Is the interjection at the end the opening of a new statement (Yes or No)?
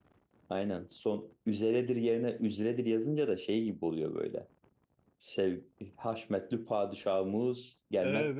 Yes